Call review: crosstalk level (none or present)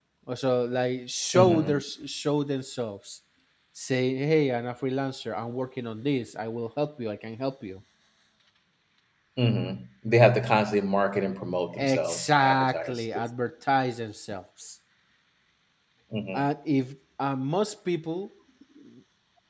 present